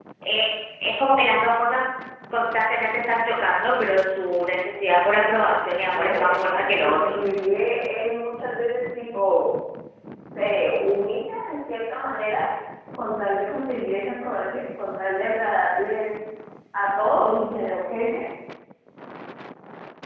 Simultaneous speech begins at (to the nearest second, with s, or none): 6 s